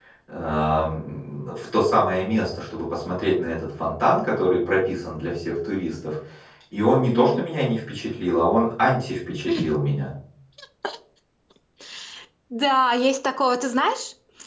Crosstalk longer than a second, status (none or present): none